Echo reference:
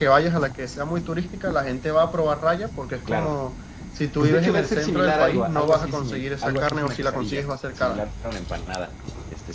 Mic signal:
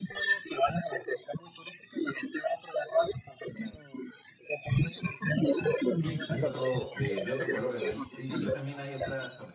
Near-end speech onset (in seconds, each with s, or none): 6.0 s